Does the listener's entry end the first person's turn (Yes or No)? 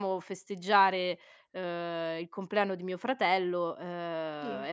No